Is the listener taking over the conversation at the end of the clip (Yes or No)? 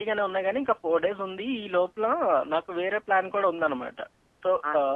No